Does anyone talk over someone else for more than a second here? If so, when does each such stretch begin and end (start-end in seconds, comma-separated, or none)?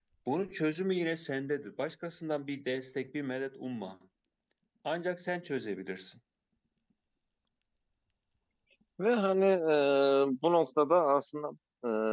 none